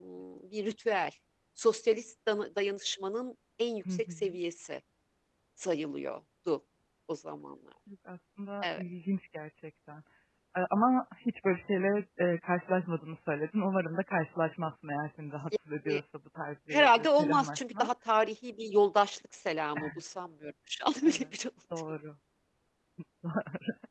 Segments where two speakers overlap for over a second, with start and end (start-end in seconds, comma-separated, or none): 16.7-17.9